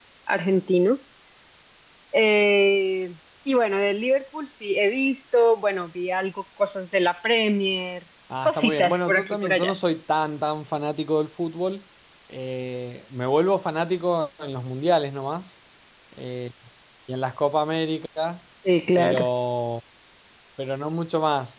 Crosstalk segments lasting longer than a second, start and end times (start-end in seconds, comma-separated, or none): 8.4-9.8